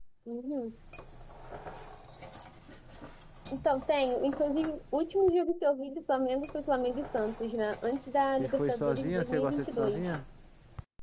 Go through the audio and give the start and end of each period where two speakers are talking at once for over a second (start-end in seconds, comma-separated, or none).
8.4-10.2